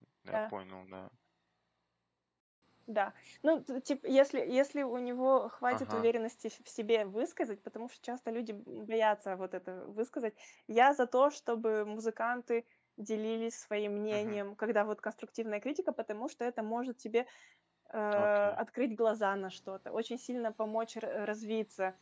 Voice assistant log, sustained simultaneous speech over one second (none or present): none